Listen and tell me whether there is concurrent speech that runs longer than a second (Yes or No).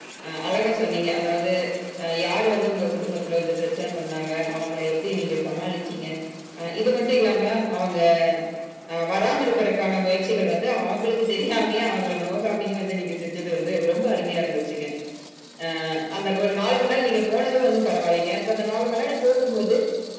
No